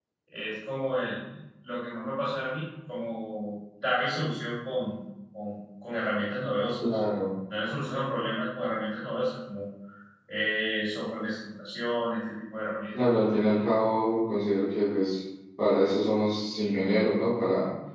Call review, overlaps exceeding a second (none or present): none